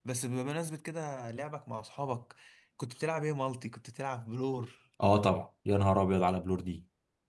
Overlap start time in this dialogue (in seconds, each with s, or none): none